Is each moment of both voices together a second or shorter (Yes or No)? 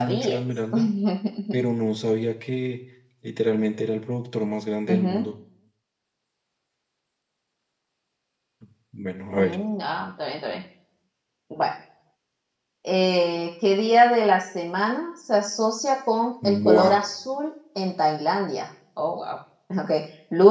Yes